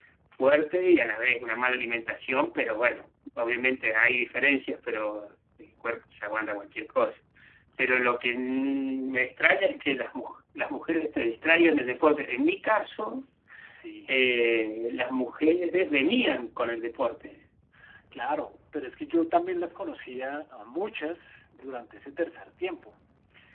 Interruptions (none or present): none